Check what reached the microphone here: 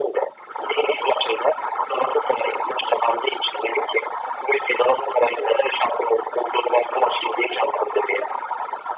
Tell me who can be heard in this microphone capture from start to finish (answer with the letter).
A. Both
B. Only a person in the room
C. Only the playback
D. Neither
C